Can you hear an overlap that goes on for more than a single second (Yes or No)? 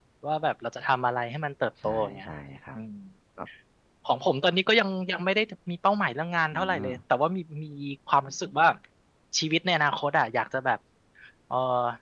No